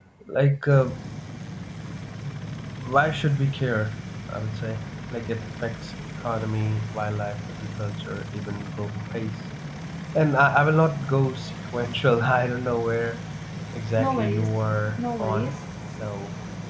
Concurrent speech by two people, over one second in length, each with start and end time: 14.0-15.6

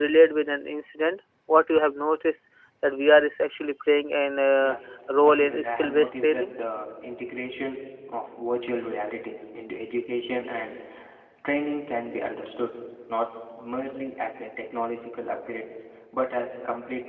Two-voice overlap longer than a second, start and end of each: 5.2-6.5

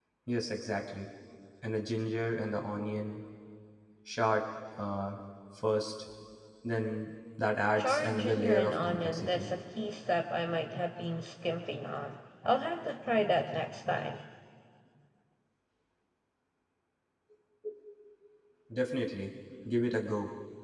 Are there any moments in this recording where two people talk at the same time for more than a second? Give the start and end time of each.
7.8-9.5

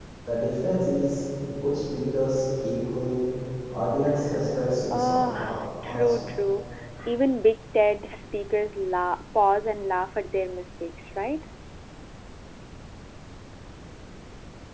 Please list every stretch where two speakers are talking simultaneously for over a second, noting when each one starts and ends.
4.9-6.1

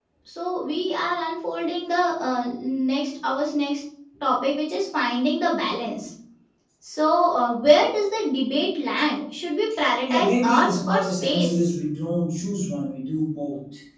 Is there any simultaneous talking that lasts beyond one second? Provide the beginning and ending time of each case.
10.1-11.7

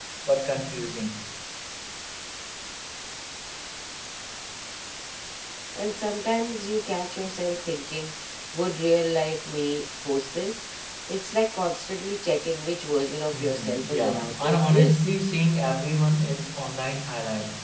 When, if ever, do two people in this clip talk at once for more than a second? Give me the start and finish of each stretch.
13.3-15.0

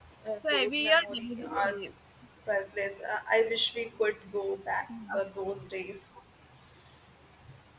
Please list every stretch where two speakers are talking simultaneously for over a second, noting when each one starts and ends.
0.5-1.8

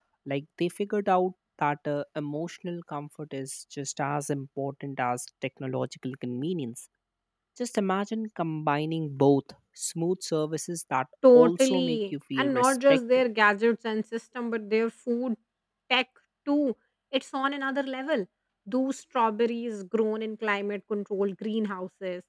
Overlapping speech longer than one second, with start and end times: 11.3-13.2

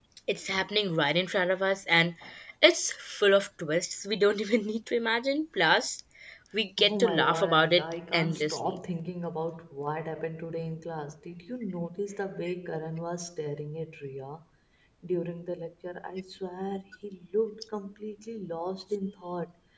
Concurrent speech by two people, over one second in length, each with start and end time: 6.8-8.8

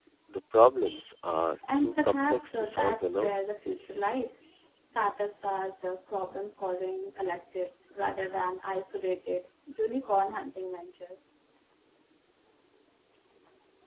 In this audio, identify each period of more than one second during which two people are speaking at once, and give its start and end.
1.8-3.3

